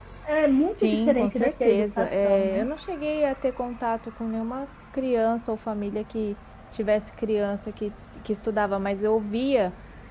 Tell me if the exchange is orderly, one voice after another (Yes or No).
No